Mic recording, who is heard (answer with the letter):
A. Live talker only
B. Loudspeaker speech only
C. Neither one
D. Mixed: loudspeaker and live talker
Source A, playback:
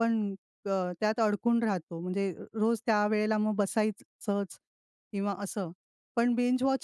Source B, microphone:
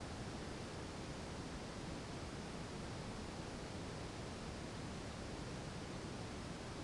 C